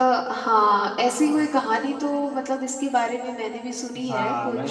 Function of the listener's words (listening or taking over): taking over